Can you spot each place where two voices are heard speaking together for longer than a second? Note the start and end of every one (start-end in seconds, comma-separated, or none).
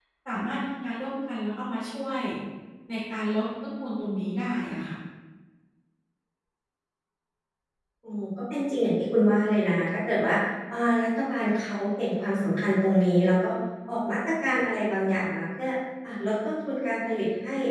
none